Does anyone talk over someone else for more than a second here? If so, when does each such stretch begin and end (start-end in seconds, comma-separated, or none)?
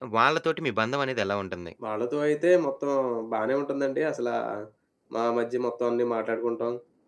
none